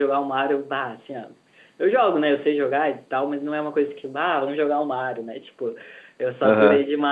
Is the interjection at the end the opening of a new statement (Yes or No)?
No